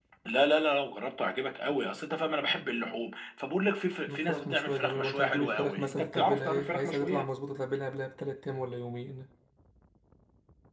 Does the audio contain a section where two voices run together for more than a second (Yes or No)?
Yes